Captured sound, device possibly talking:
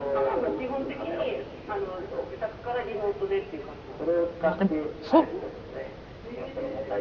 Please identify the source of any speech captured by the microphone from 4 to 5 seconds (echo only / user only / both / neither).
both